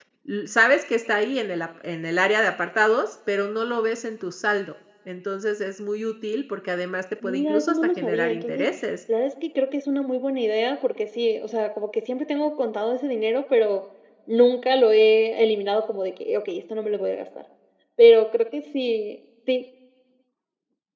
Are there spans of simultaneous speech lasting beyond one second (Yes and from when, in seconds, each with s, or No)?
Yes, from 7.2 s